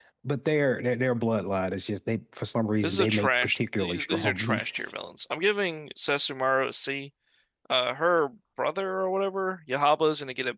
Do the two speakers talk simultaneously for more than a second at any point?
Yes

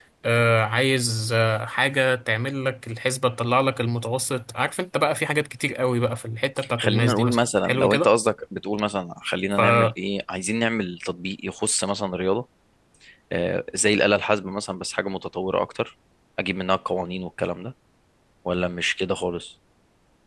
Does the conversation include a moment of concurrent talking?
Yes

